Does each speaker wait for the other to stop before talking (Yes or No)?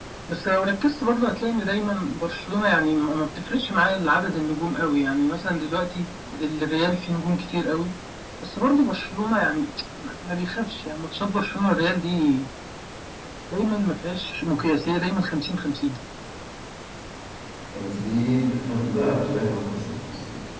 Yes